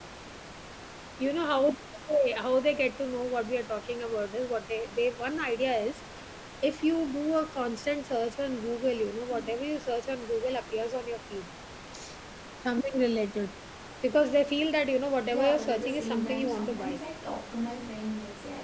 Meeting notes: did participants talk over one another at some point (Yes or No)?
Yes